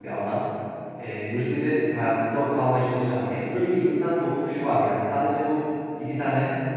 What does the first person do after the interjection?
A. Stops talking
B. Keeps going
B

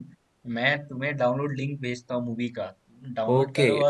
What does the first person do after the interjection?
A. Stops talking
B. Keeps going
A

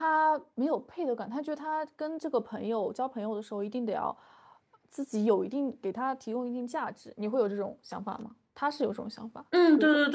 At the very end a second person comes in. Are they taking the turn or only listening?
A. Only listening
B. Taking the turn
B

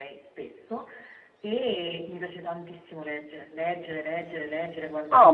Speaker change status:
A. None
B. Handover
B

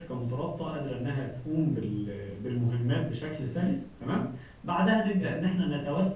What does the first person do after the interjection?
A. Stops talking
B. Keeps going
B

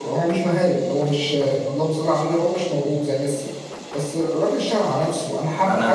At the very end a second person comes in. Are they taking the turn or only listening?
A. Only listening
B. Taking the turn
B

